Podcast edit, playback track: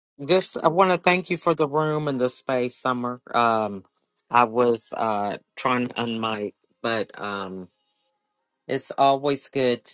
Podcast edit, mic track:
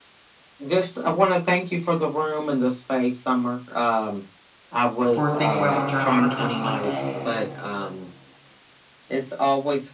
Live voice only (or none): for Think Well and Journal for 21 days.